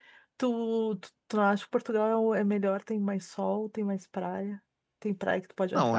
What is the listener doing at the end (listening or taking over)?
taking over